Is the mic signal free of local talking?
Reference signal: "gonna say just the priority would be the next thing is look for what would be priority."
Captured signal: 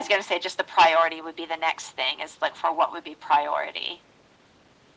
Yes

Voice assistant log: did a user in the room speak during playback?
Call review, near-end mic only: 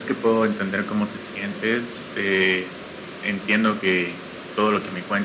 No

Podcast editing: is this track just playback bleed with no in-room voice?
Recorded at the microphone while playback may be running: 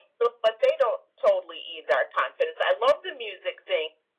Yes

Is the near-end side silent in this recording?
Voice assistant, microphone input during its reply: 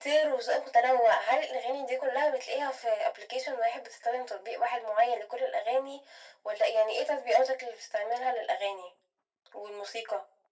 Yes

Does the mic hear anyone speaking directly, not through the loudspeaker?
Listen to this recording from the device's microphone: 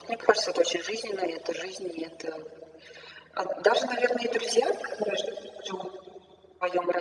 No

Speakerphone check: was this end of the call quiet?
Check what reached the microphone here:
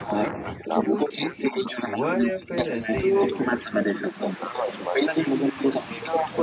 No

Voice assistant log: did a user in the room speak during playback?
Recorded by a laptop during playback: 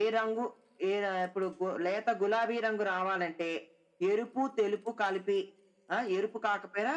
No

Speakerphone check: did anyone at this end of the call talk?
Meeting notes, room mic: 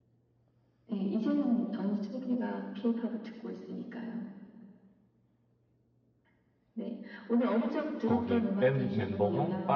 Yes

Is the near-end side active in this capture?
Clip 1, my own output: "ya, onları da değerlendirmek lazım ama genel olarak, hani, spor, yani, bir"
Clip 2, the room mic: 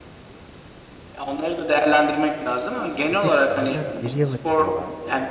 Yes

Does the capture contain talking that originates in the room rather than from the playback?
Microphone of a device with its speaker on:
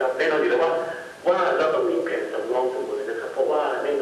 No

